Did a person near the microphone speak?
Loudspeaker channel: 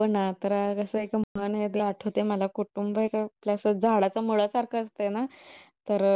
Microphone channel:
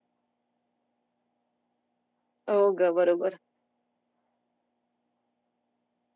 Yes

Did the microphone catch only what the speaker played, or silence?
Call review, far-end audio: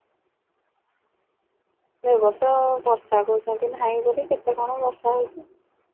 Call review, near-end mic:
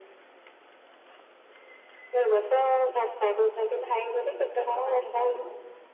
No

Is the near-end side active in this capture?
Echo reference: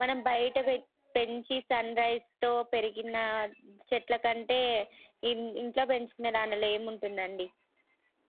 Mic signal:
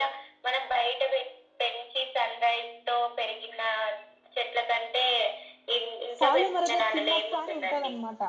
Yes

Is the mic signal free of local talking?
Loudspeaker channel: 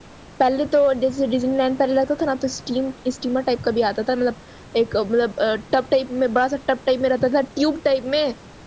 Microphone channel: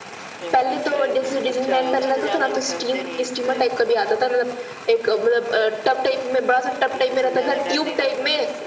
No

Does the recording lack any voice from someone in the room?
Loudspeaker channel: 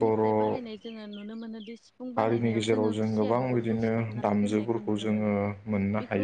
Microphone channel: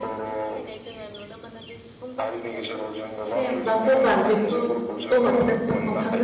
No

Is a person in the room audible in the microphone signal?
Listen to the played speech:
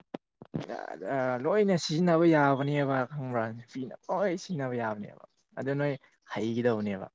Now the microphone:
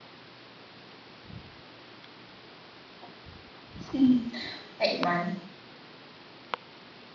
Yes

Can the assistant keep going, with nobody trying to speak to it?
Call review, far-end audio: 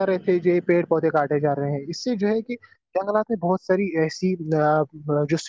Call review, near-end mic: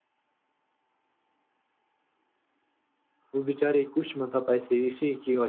No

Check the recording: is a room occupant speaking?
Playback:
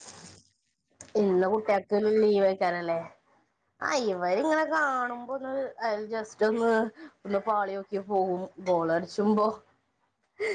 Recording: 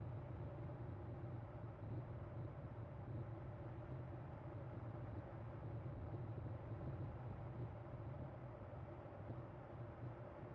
No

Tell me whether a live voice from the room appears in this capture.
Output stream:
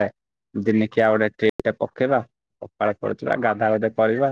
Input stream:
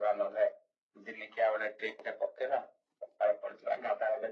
No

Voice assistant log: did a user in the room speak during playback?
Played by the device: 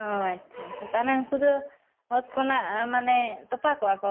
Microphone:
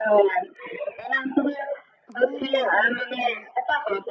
Yes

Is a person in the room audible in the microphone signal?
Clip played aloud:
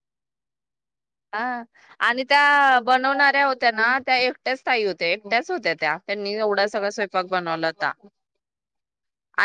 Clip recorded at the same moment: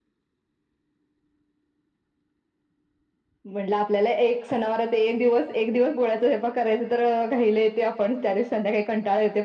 Yes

